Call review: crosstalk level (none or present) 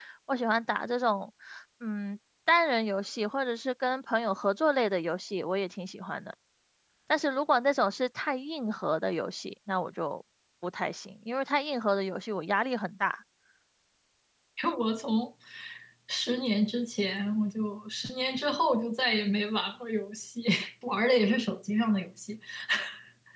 none